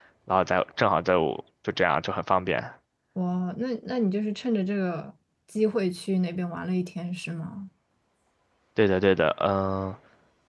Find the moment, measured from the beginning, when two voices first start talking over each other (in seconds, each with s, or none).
none